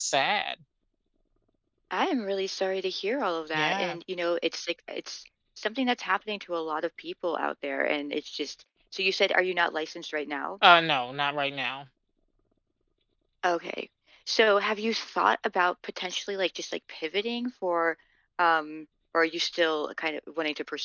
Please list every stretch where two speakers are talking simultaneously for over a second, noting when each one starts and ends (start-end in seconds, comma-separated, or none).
none